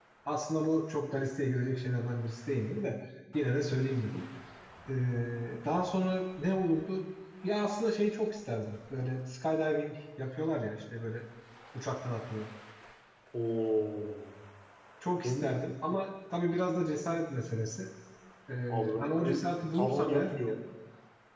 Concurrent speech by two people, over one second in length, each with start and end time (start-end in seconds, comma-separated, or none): 18.7-20.3